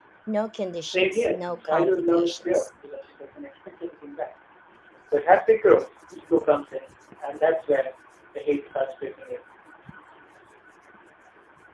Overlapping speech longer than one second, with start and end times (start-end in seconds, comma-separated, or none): 0.8-2.7